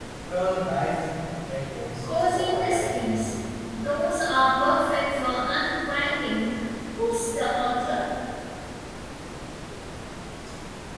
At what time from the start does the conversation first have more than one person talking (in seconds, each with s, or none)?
2.0 s